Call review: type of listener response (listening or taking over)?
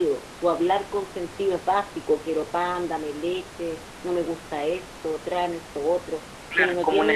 taking over